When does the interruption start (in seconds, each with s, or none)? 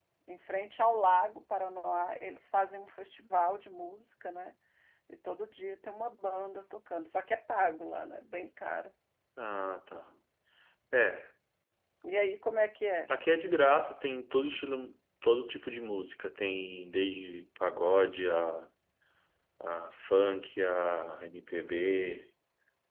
none